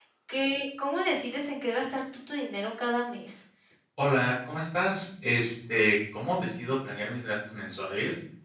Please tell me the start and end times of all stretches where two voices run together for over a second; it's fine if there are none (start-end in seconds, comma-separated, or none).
none